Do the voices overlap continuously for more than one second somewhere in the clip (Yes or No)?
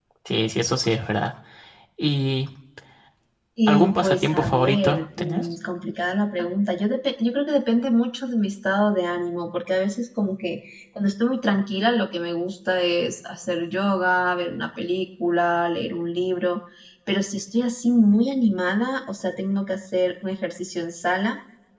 Yes